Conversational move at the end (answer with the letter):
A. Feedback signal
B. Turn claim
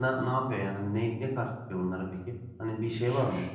B